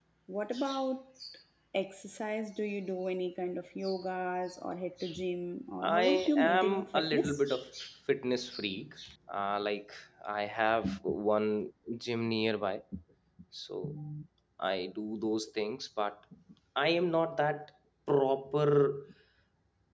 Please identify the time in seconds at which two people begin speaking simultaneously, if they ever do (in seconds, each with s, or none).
5.8 s